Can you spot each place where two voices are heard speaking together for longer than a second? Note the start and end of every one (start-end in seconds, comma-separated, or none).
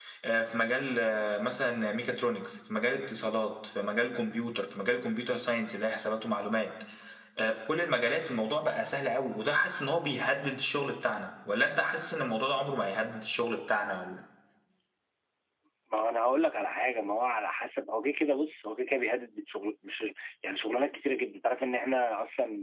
none